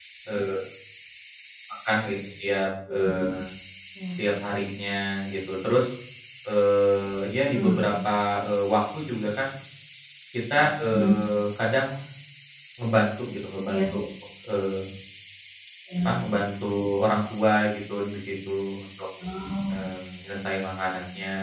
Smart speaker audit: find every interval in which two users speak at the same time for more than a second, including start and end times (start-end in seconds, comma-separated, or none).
none